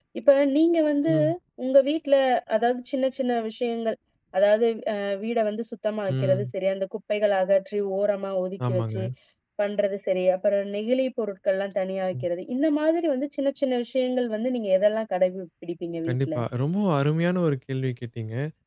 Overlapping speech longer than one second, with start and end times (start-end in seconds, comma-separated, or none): none